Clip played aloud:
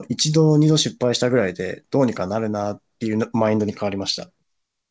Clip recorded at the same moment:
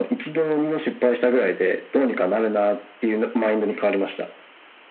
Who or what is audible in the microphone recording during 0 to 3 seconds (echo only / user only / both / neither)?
echo only